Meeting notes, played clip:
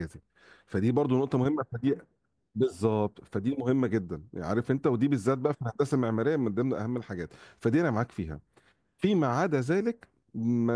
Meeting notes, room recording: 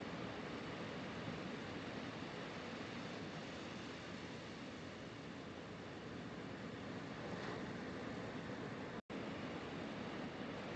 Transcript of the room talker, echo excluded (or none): none